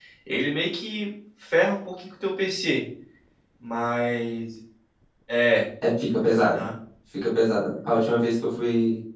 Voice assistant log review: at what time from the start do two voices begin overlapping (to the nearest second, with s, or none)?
none